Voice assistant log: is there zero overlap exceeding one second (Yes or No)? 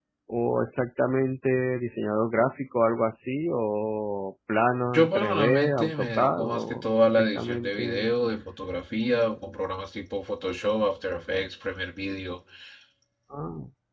No